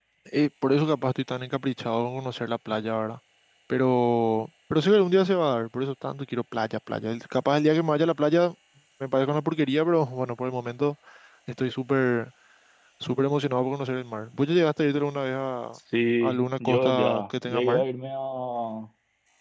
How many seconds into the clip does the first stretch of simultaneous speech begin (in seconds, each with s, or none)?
16.2 s